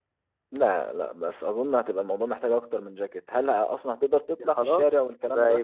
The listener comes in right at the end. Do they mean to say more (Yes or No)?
Yes